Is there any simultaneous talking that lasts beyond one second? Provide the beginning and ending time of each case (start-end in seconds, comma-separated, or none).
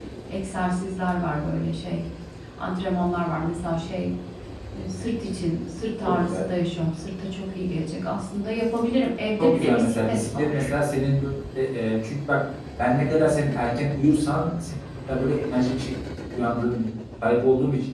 9.4-10.7